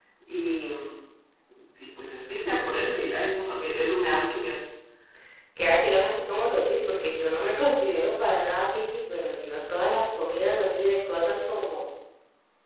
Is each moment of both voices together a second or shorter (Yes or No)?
Yes